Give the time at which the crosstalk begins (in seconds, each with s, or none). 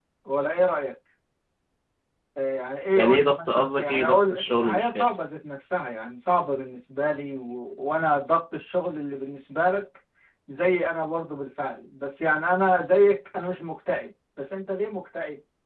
3.0 s